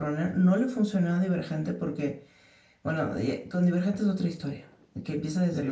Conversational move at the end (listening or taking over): listening